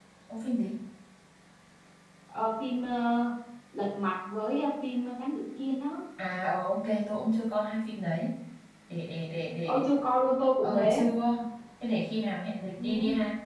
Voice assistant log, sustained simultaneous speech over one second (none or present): none